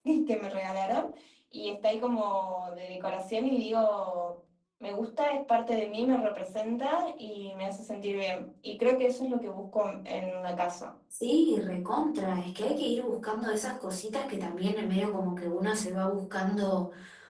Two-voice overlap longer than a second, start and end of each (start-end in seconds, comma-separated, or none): none